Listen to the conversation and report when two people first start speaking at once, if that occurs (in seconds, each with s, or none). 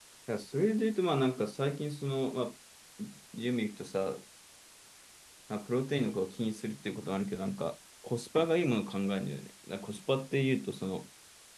none